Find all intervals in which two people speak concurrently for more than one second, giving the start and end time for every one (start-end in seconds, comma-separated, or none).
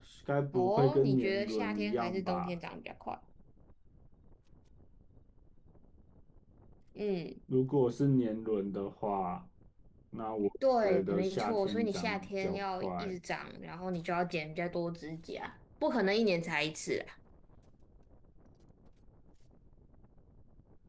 0.5-2.6, 10.8-13.2